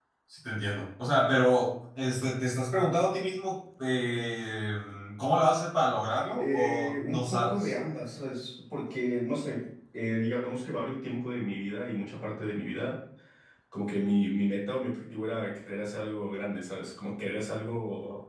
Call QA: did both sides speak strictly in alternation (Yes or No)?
No